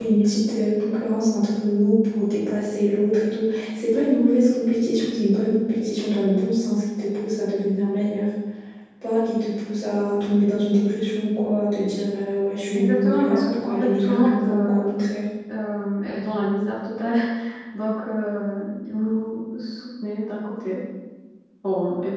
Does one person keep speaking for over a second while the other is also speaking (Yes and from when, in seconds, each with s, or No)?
Yes, from 12.7 s